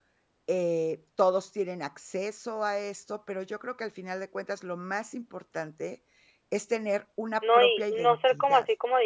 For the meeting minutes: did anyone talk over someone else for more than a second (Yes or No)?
Yes